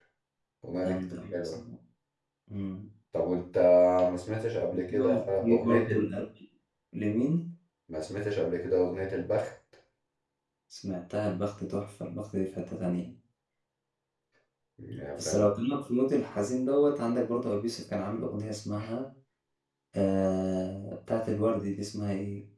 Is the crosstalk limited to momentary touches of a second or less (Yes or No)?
No